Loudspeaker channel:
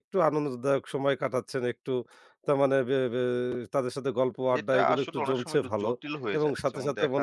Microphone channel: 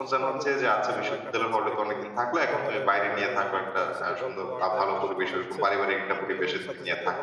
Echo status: present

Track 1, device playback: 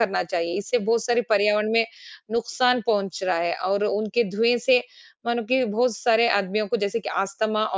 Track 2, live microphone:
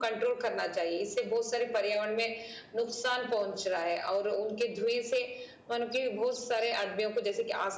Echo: present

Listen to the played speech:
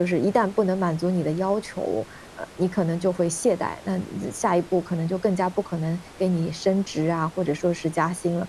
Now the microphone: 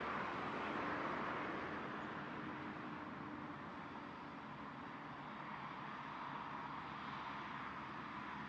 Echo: none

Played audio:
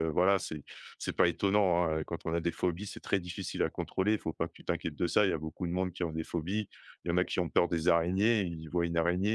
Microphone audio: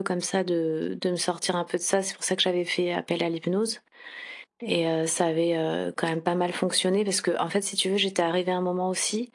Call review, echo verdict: none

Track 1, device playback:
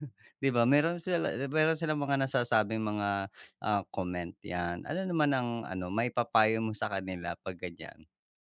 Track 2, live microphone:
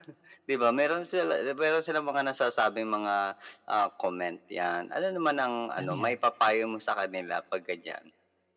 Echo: present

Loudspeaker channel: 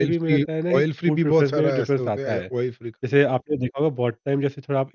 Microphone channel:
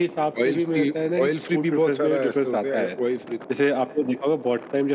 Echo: present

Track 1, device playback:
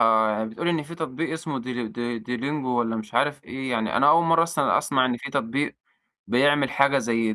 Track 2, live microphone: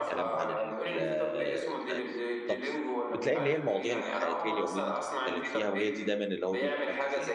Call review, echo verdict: present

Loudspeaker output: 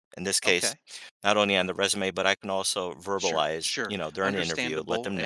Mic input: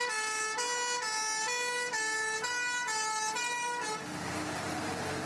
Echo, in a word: none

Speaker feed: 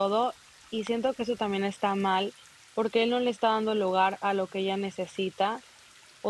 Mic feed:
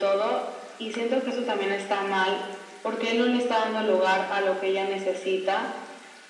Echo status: present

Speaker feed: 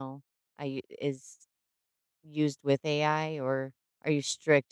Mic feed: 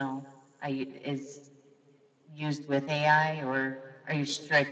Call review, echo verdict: present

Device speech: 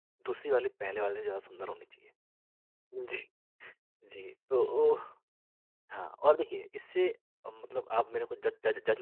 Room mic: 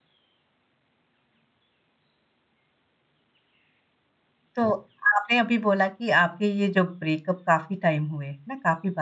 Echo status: none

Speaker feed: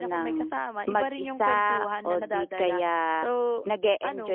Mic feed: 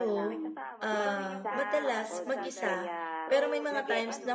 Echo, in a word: present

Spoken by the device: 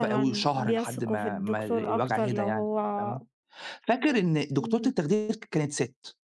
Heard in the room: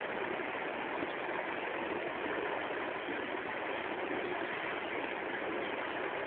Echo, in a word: none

